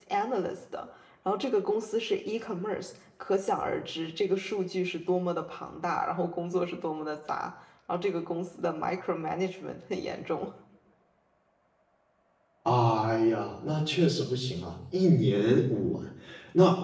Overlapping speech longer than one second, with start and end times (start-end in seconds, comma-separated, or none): none